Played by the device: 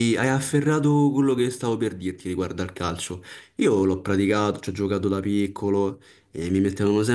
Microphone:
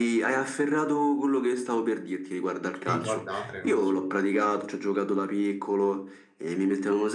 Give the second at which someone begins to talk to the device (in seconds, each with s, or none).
2.7 s